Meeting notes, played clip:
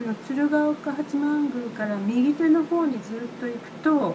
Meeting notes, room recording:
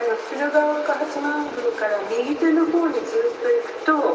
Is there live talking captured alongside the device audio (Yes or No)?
No